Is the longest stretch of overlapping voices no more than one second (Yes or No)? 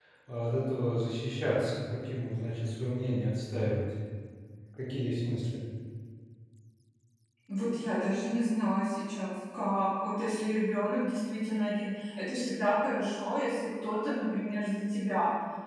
Yes